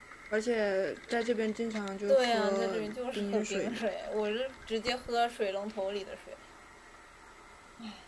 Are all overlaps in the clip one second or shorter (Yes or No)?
No